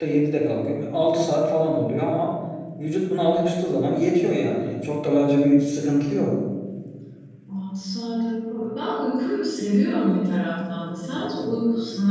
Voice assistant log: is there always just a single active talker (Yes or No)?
Yes